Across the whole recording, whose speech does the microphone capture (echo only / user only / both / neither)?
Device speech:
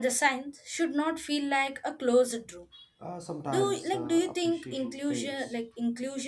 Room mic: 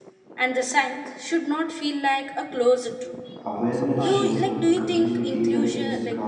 both